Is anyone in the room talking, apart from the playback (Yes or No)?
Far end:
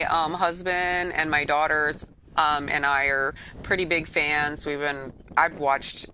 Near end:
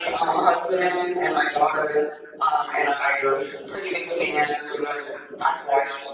No